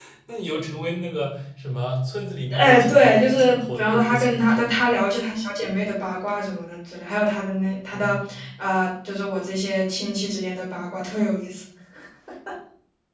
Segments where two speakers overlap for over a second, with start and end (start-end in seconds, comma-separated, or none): 2.5-4.7